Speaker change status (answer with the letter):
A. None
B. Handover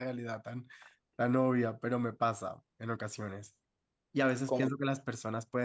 A